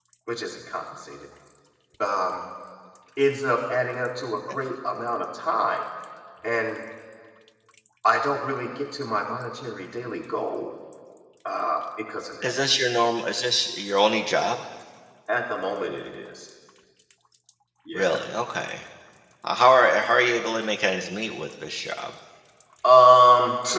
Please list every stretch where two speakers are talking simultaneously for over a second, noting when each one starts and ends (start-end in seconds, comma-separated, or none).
none